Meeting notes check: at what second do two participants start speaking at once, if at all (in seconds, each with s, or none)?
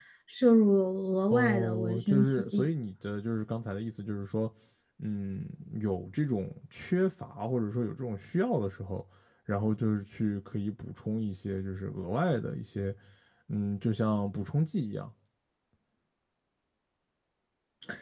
1.3 s